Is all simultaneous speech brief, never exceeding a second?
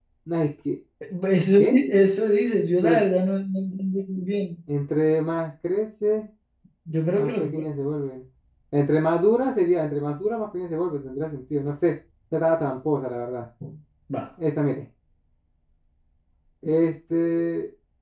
Yes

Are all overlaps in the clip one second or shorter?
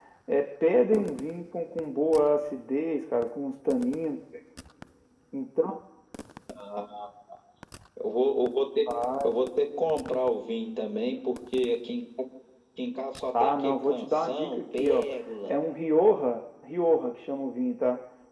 No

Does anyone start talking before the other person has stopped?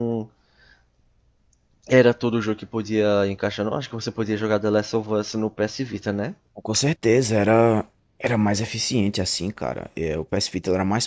No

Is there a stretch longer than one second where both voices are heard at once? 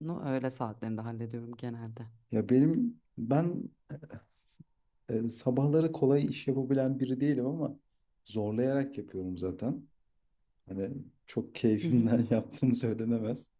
No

